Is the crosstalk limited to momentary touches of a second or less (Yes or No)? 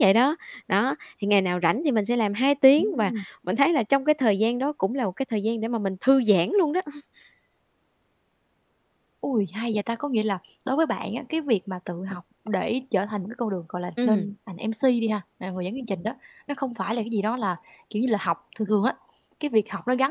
Yes